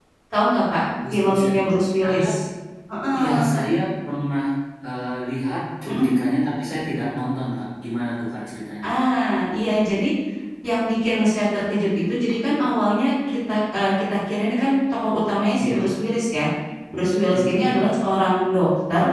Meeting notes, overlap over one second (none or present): none